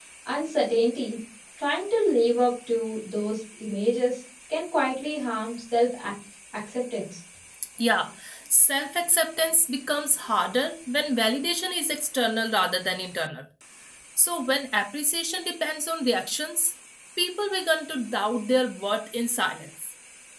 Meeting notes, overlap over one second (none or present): none